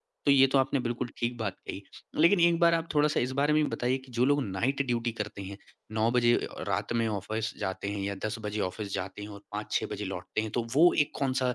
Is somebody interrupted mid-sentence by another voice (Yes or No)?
No